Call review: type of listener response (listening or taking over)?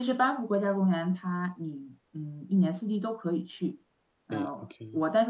listening